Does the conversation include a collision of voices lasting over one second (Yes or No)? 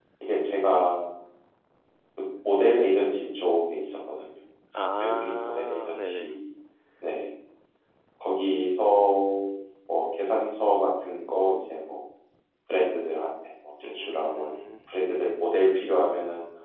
Yes